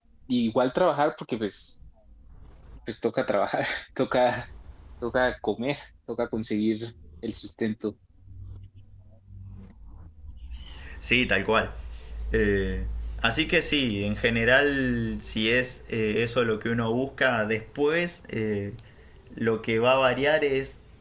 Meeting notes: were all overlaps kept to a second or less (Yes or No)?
Yes